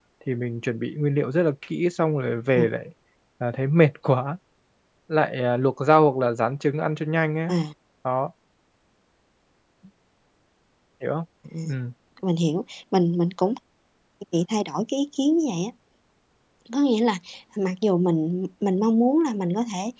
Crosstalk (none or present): none